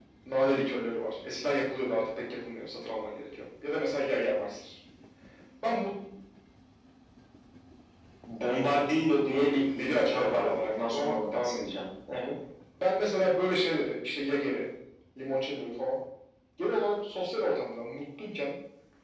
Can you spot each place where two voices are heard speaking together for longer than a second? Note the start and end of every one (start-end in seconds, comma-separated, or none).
9.3-11.8